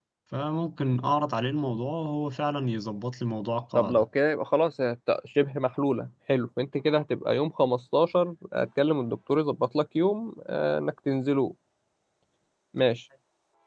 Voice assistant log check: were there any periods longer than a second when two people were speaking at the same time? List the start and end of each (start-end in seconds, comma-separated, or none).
none